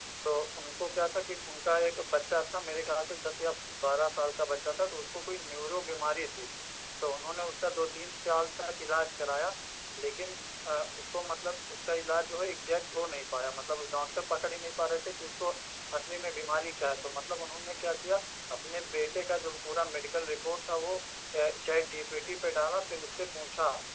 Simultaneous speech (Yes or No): No